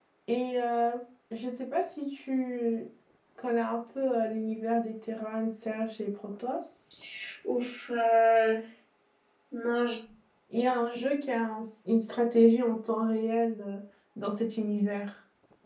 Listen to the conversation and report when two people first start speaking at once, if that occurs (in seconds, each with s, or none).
none